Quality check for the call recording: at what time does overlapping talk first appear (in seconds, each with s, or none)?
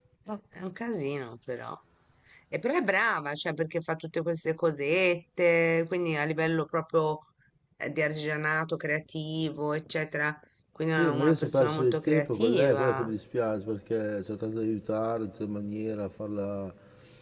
11.0 s